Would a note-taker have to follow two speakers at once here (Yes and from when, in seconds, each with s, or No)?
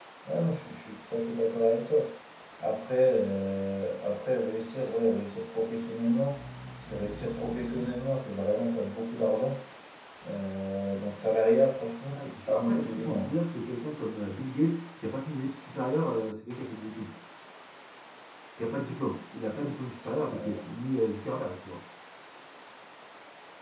Yes, from 12.1 s